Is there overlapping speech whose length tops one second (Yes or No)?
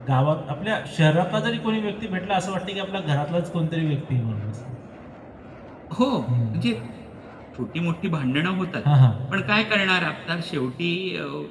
No